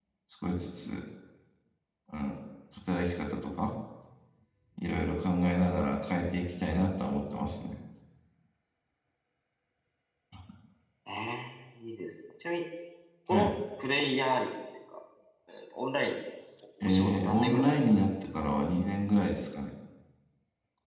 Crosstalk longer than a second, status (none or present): present